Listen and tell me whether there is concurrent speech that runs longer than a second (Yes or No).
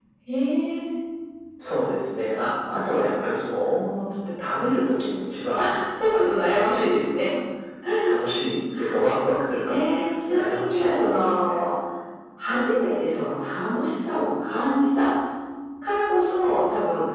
Yes